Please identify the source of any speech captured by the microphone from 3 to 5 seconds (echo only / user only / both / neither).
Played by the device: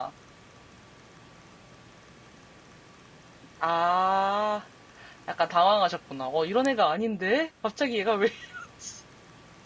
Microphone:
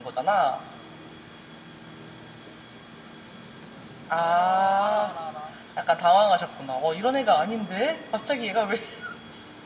both